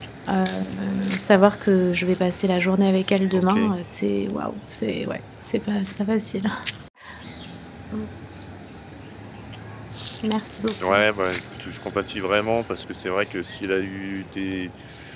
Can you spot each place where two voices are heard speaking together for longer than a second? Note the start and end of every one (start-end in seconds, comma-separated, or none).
none